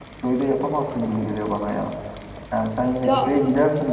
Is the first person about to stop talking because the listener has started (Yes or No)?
No